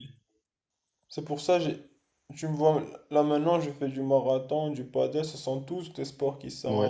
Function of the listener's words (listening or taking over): taking over